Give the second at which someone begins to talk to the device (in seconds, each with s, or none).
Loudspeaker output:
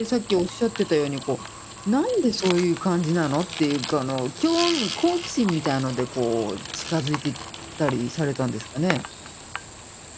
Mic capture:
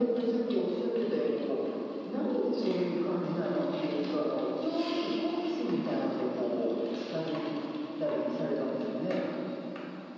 none